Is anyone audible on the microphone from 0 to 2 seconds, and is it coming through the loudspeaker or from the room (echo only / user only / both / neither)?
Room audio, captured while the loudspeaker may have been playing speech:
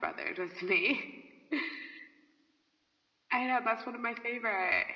echo only